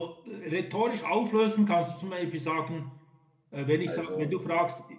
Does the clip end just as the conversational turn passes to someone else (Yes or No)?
No